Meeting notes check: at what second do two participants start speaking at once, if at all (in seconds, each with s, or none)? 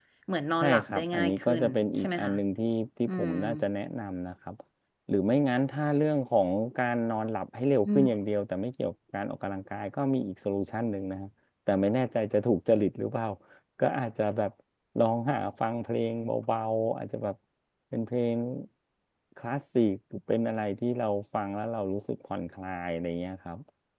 0.6 s